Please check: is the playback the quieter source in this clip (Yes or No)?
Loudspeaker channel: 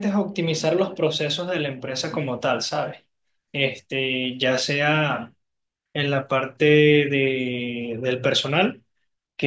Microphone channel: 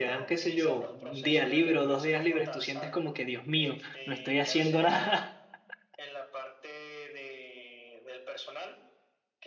Yes